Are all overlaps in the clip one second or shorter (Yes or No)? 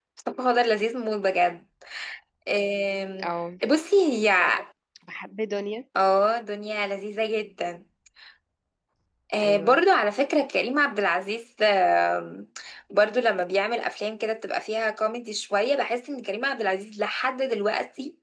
Yes